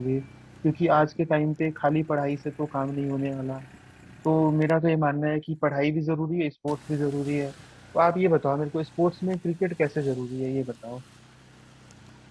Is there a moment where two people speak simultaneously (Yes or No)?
No